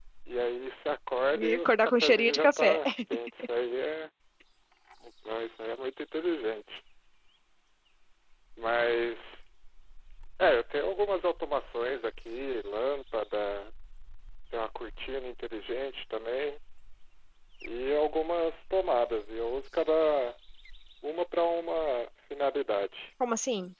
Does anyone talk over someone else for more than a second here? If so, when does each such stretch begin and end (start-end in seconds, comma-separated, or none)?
1.6-2.8